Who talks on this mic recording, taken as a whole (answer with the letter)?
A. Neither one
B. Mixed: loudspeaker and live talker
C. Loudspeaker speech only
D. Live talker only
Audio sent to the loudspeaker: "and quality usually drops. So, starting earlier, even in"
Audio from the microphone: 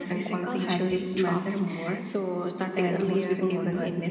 B